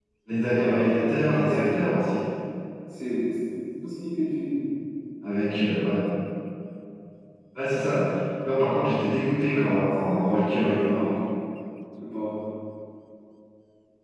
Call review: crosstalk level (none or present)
present